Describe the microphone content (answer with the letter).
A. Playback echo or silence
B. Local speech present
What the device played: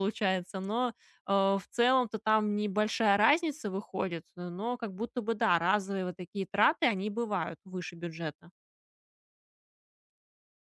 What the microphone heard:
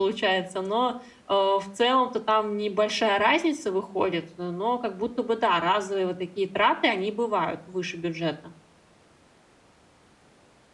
A